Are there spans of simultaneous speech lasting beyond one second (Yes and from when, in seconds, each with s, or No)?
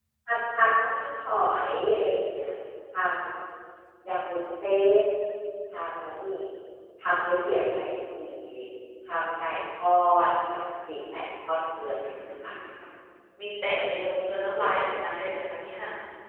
No